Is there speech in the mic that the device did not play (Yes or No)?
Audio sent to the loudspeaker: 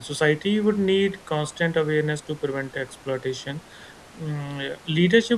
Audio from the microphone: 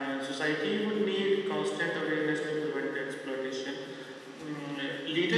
No